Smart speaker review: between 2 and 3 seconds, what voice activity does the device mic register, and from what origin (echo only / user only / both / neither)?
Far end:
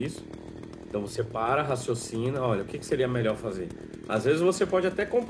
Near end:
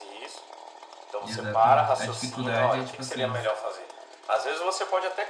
both